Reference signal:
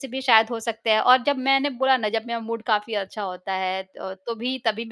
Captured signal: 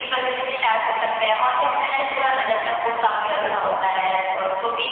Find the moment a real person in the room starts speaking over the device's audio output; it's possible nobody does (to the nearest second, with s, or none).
3 s